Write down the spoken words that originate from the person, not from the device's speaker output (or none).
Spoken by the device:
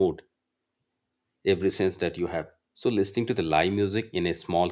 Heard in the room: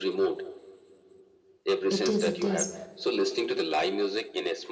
It is, it is.